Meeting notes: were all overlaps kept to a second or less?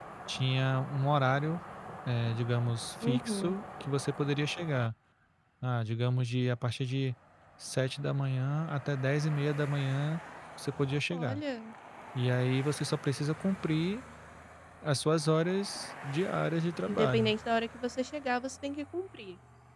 Yes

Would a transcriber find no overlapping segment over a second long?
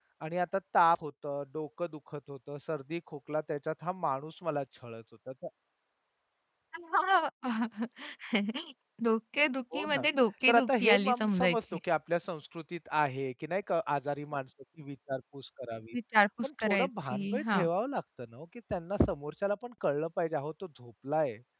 No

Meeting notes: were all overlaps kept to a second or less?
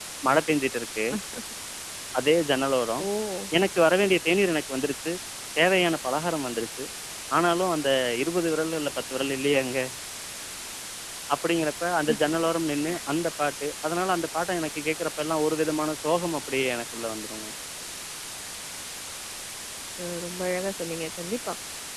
Yes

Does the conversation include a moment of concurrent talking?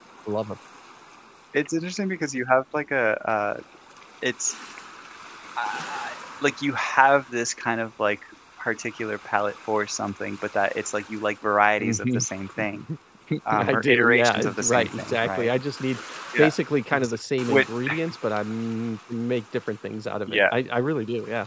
Yes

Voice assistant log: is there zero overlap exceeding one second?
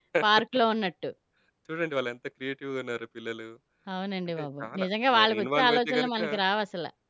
No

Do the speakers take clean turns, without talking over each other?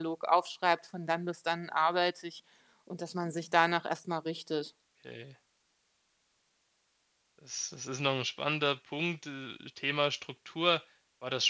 Yes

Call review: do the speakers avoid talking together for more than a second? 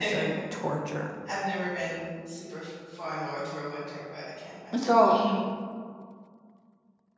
Yes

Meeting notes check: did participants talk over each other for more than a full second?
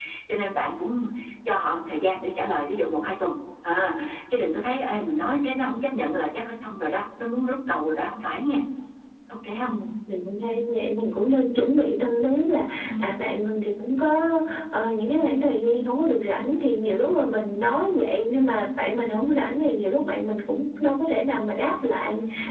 No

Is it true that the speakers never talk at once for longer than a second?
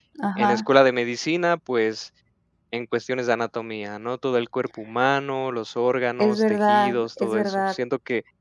No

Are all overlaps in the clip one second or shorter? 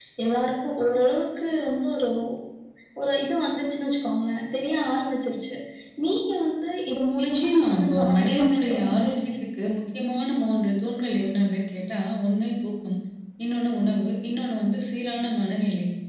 No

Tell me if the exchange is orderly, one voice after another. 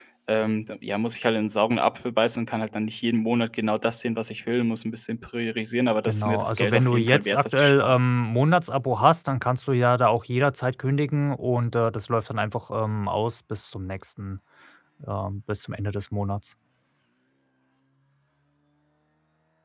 No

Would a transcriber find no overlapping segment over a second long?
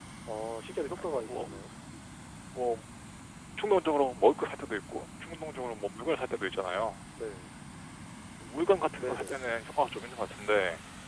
Yes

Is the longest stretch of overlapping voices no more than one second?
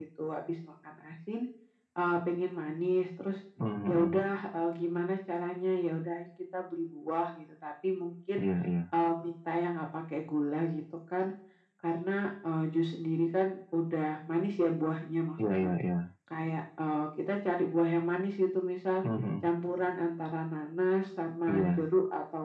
Yes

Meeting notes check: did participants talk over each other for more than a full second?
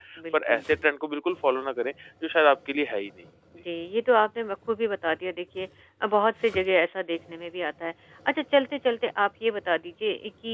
No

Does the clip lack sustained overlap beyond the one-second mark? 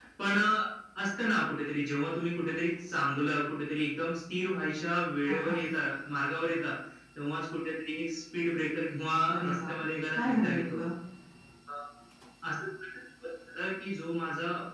No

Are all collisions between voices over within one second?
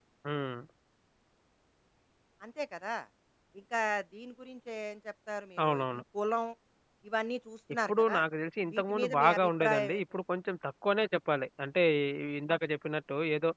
No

